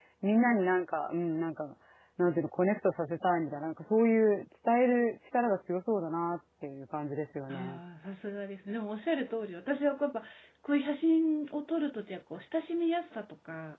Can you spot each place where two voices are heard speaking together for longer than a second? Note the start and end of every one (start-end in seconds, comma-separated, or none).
none